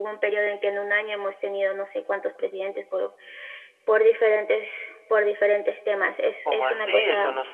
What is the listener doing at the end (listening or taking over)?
taking over